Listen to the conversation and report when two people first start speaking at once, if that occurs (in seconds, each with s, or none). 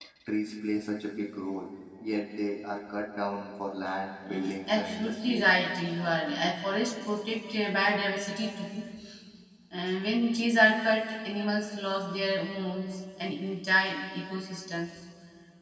4.3 s